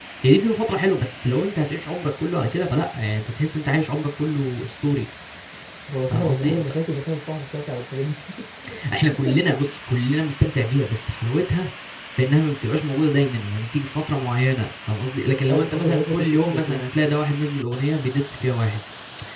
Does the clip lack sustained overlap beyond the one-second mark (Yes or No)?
No